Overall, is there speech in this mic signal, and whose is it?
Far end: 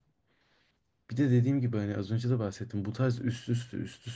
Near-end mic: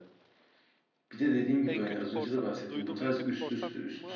both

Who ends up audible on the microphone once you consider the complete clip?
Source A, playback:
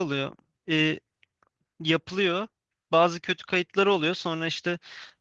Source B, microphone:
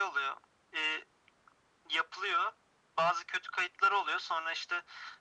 echo only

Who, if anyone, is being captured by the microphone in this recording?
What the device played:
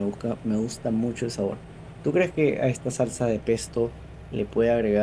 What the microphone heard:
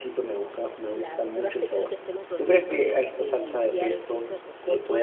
both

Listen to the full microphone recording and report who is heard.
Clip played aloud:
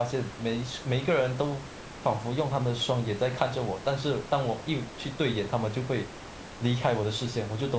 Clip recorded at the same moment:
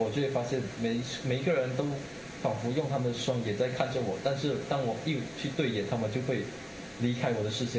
echo only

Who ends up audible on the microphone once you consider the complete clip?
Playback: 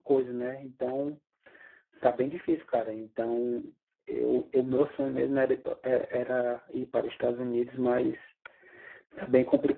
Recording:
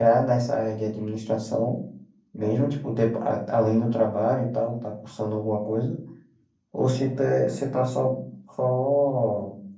user only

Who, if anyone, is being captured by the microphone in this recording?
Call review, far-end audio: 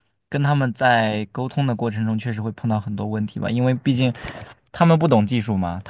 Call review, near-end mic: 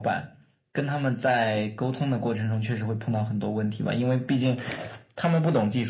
echo only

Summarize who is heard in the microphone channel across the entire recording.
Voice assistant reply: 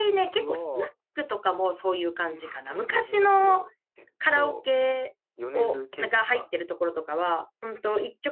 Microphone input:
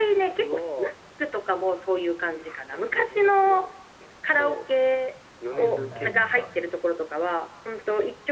both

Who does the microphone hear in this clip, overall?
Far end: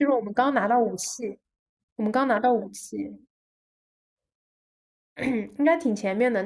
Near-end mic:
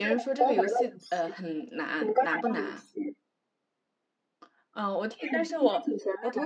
both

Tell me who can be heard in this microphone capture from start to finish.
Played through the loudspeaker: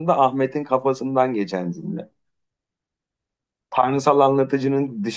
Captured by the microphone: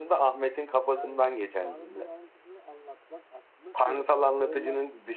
both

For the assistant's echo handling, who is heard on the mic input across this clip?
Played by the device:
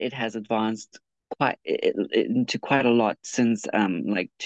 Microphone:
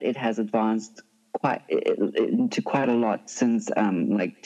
echo only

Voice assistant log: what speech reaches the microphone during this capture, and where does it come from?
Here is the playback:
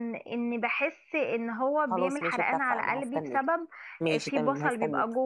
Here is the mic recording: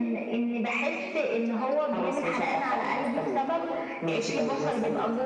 both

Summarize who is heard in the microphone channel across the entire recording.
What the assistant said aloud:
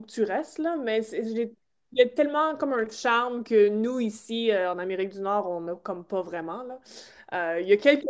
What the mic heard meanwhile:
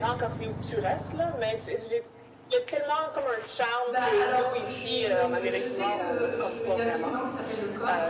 both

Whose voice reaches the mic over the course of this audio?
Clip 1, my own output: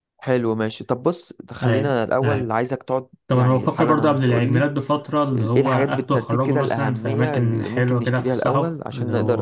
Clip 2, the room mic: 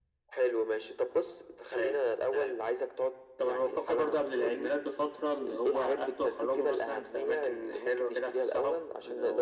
echo only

